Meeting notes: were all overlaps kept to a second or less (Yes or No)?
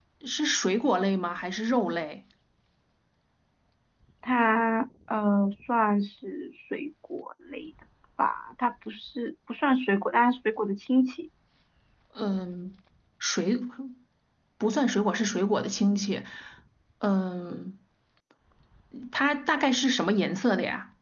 Yes